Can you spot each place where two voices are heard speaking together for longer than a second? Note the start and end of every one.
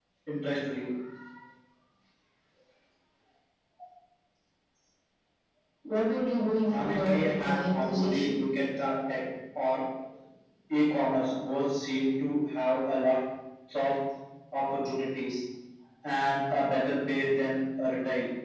6.7-8.4

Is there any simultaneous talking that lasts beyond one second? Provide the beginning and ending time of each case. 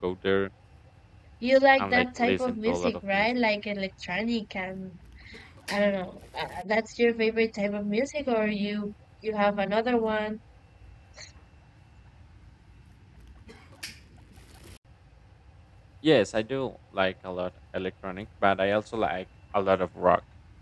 1.8-3.3

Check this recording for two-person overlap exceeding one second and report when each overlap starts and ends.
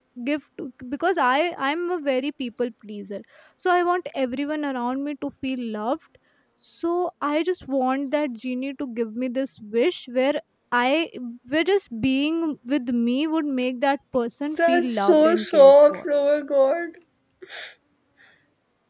14.7-16.0

